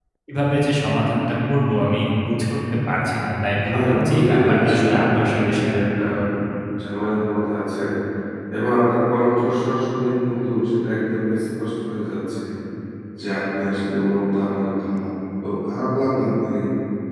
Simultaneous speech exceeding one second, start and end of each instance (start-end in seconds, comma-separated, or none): 3.7-6.0